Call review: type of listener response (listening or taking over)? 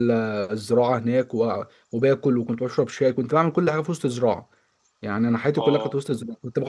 listening